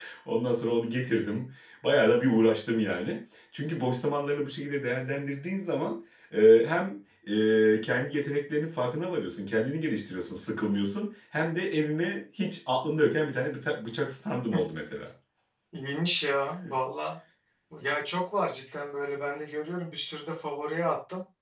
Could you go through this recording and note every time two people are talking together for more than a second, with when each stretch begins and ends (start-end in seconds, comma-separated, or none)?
none